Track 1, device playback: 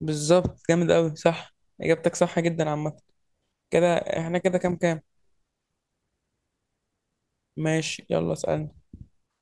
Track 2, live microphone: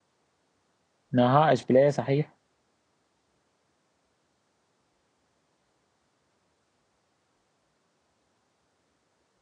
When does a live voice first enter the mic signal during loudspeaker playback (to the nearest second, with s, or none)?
1 s